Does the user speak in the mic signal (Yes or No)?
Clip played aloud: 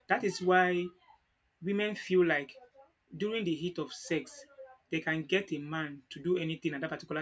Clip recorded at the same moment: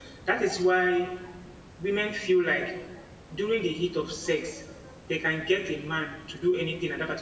No